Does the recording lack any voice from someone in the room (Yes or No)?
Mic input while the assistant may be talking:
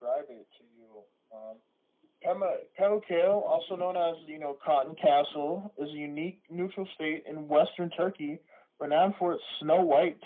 No